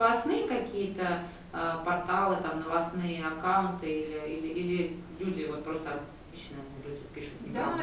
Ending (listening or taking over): taking over